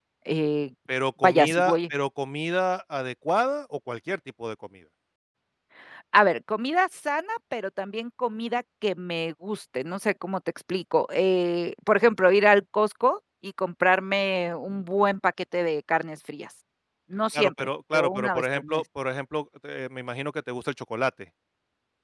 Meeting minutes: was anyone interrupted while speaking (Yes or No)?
Yes